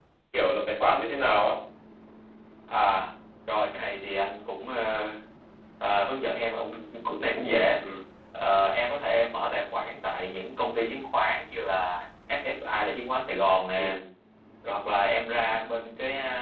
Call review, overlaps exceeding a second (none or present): none